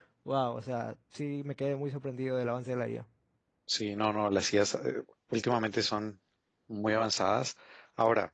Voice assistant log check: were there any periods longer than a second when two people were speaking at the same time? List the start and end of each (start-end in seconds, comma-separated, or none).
none